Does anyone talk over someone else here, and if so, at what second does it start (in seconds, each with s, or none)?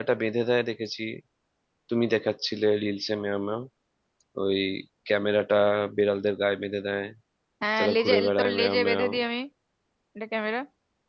7.8 s